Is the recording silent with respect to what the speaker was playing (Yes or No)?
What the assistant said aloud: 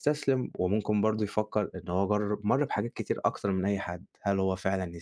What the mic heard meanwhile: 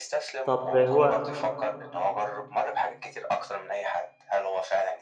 No